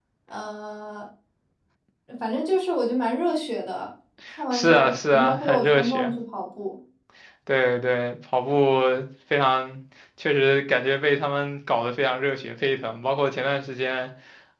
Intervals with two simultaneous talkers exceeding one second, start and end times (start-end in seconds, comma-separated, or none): 4.5-6.1